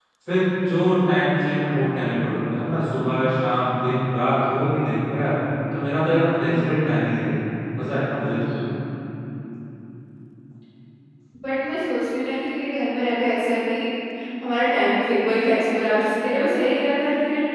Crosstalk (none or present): none